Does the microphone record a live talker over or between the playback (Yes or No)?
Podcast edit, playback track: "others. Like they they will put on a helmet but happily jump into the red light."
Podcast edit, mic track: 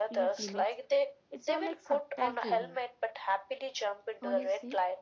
Yes